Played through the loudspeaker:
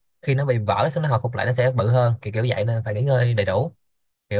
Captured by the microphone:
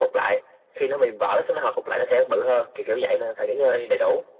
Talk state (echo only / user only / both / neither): echo only